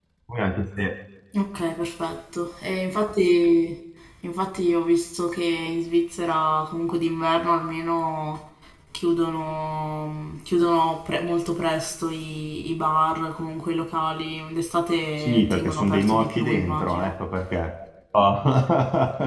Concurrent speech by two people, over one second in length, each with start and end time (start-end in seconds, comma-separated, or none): 15.2-17.1